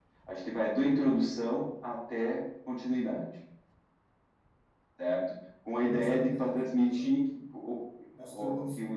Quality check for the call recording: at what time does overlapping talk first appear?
6 s

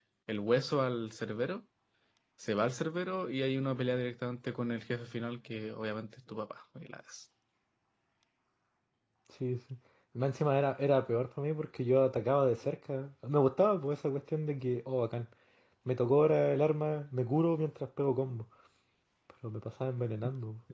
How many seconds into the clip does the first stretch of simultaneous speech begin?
none

